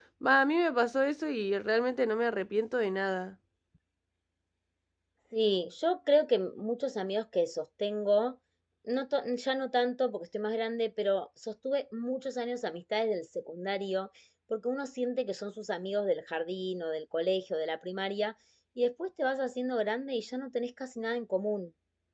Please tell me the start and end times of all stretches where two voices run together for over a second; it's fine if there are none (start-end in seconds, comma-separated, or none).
none